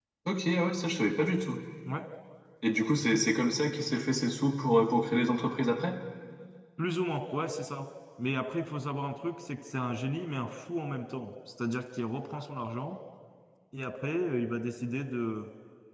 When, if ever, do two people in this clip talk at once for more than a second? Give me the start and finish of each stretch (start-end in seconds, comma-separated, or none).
none